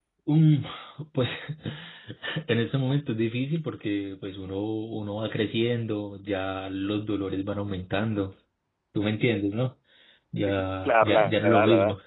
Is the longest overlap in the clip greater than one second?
Yes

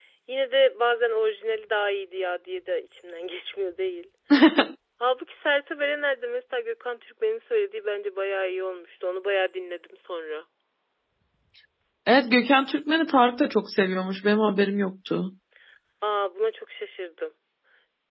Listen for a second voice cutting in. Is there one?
No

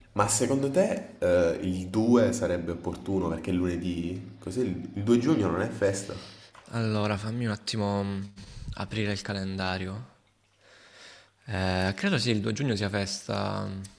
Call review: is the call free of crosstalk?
Yes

